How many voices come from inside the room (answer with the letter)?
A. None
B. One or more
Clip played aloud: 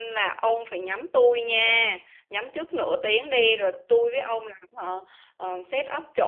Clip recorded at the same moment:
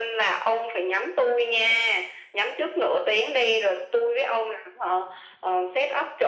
A